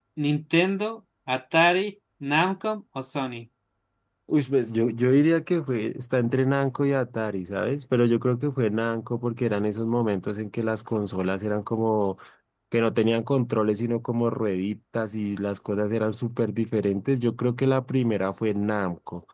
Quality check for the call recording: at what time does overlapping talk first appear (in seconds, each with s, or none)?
none